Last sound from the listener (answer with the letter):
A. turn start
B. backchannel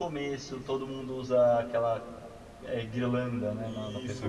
A